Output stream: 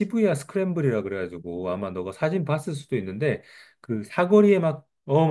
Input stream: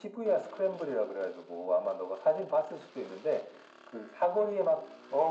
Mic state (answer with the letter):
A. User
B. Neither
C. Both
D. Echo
D